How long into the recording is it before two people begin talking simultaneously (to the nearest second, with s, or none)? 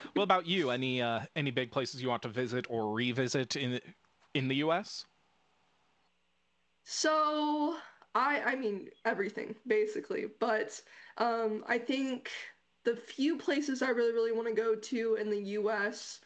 none